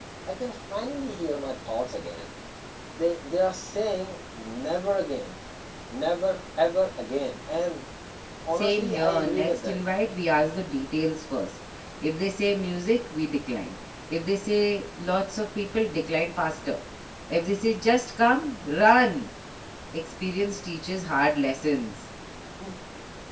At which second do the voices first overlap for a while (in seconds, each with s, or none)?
8.5 s